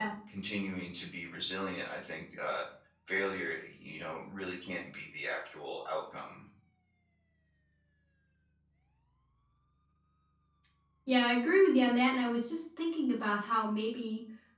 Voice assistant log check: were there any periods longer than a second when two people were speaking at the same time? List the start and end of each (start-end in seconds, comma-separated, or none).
none